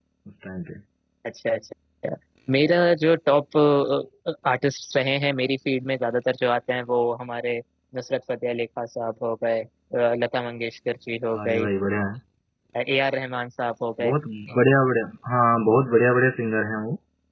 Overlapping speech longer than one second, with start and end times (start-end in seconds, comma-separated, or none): none